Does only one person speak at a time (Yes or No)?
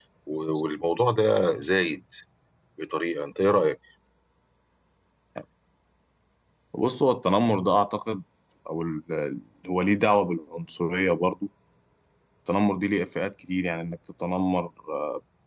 Yes